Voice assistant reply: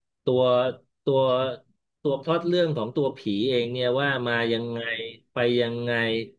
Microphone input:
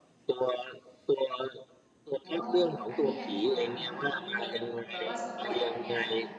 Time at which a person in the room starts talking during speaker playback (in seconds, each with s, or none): 2.2 s